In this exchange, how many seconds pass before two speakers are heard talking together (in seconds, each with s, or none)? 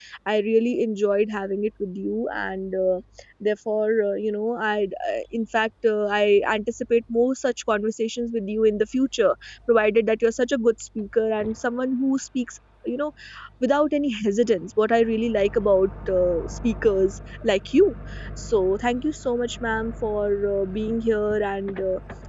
none